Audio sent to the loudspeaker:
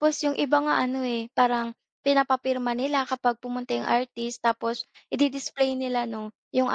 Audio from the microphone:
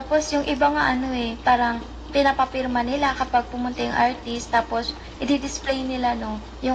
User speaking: No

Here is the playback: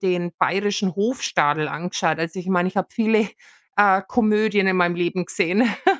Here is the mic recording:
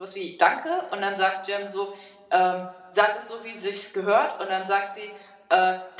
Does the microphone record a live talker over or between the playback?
Yes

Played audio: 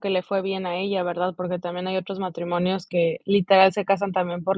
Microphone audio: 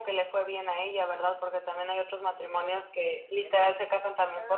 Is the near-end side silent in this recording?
No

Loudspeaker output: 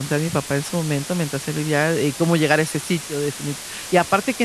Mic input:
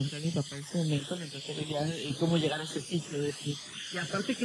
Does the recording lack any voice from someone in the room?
Yes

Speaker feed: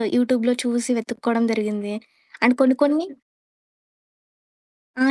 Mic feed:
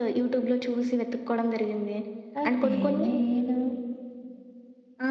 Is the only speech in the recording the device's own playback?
No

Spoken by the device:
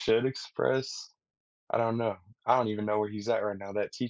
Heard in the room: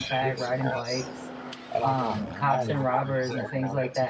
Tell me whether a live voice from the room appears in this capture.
Yes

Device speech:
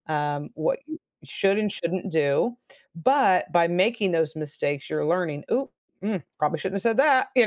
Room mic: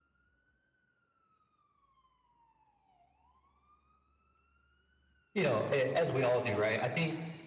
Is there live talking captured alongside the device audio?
Yes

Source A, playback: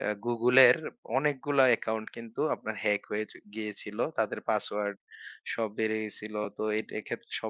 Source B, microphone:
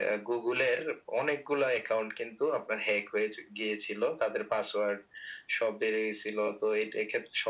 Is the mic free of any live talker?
Yes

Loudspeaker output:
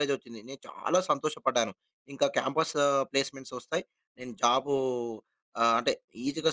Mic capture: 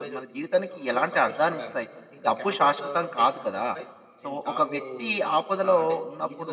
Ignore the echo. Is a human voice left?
Yes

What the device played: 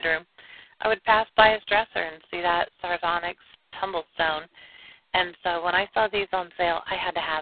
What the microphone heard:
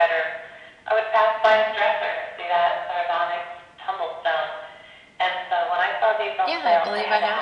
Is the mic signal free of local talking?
No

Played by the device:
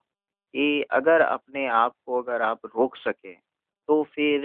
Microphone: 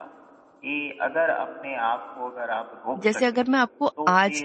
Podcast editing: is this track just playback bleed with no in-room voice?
No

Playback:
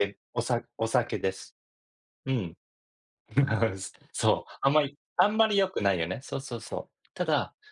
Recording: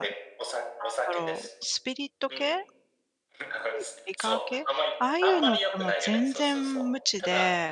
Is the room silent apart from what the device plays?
No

